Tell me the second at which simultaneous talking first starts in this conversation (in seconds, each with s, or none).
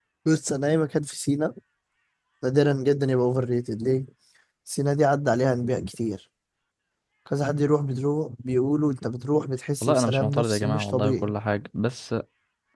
9.8 s